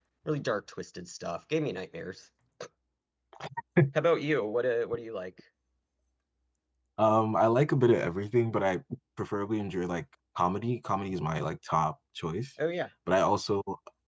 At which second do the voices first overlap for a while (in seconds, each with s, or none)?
none